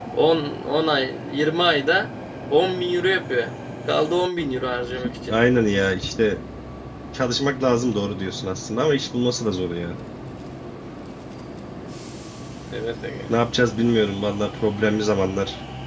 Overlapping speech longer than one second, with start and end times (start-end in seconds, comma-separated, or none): none